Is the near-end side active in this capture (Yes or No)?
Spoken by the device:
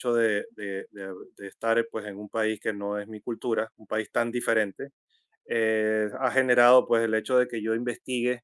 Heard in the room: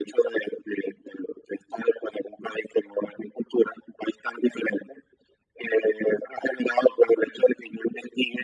No